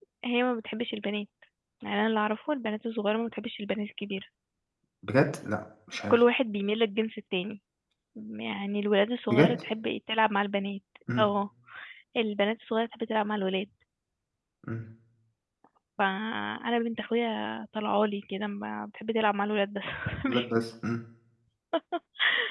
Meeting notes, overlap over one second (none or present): none